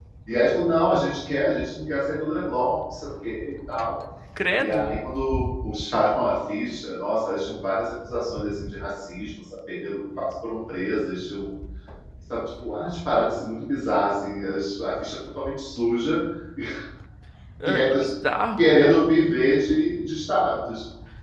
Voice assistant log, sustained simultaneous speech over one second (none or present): none